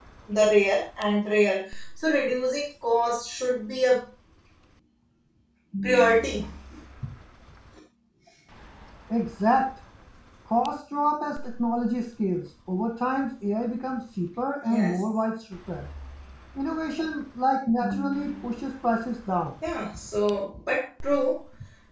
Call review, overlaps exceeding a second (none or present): none